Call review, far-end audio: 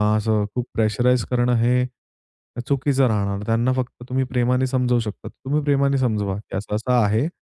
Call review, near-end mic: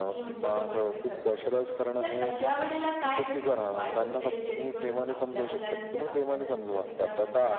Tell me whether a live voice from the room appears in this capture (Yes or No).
Yes